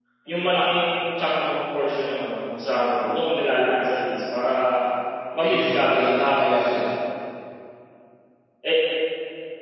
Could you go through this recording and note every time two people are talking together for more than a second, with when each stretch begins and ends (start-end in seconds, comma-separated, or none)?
5.4-6.8